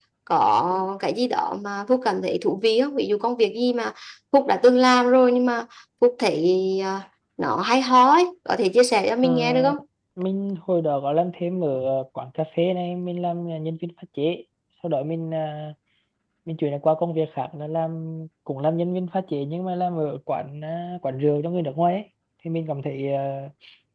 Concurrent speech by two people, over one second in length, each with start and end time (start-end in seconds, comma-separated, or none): none